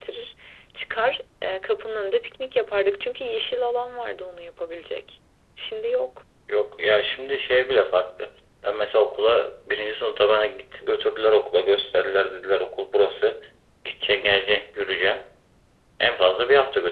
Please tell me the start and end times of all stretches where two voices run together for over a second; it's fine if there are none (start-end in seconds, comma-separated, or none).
none